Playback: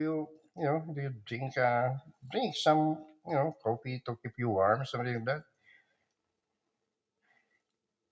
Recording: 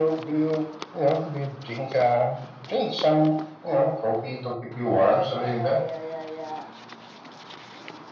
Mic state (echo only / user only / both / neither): both